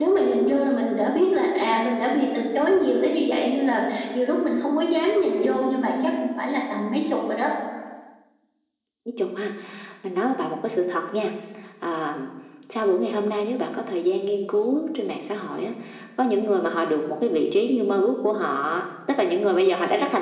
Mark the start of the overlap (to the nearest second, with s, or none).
none